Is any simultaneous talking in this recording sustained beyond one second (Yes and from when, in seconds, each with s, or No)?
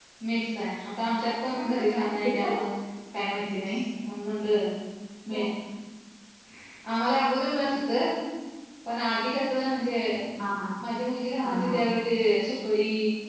Yes, from 1.3 s